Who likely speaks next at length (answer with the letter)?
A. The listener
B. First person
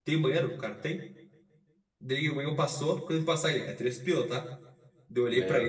B